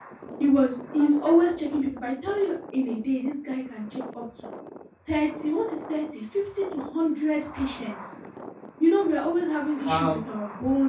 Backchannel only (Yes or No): Yes